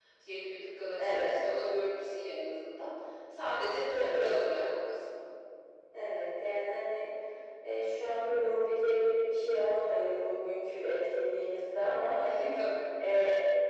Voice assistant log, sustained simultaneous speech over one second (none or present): none